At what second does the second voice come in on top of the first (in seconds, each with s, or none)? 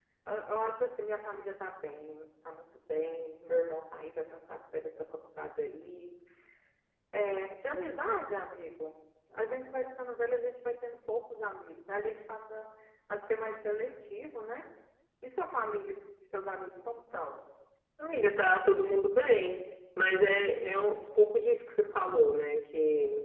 none